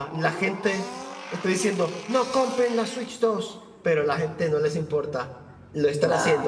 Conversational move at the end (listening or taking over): listening